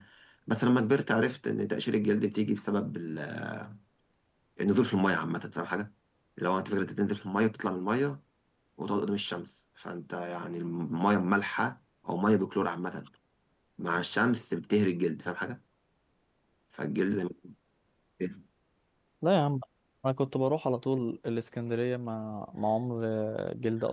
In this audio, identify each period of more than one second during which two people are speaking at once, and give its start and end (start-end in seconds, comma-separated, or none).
none